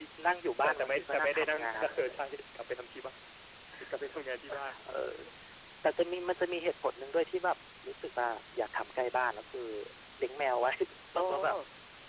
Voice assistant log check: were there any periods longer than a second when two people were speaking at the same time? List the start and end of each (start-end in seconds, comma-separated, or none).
0.6-2.2